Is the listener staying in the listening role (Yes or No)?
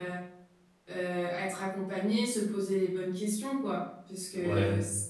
Yes